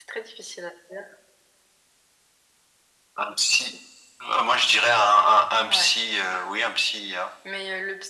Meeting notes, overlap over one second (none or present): none